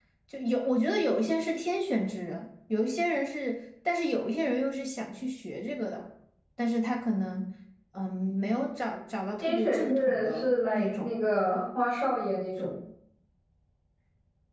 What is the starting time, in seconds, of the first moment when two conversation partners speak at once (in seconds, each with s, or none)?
9.4 s